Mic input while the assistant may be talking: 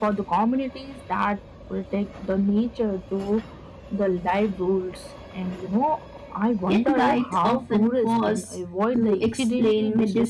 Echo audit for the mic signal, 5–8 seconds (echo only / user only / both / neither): both